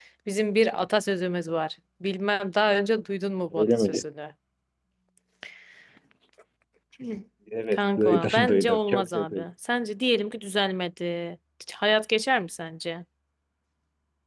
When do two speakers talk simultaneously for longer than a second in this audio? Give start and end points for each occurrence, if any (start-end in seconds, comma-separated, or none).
7.7-9.4